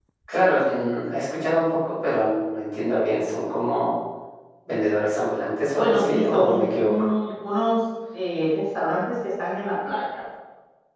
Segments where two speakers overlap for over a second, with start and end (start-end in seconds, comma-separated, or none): 5.8-7.1